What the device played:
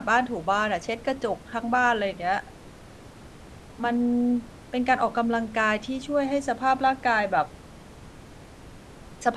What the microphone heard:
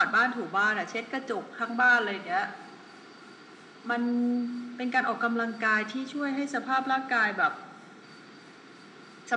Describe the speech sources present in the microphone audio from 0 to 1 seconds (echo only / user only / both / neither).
echo only